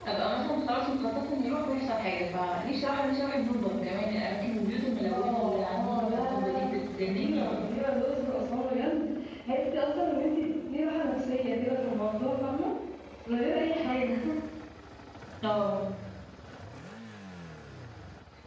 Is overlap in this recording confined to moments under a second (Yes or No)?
No